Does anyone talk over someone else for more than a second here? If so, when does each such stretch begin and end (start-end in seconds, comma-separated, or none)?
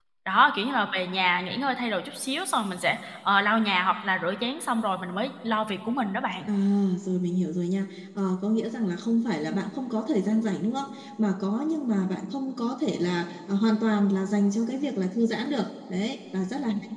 none